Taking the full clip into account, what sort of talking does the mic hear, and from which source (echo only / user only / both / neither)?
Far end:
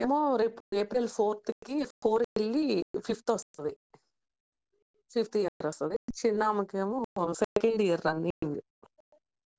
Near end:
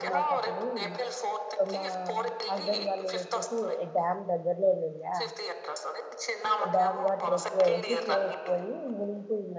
both